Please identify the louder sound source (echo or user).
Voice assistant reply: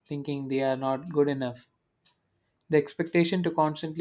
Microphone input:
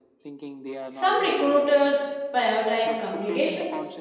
user